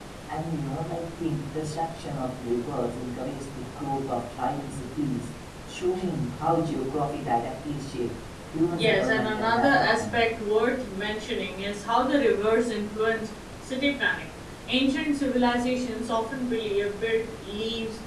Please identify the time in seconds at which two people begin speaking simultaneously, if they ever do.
8.7 s

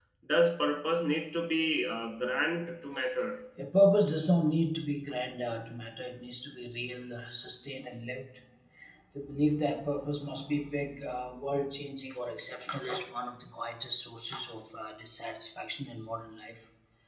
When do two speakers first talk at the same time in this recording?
none

